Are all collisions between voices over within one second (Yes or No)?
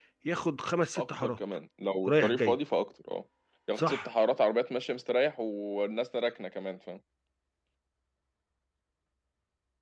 Yes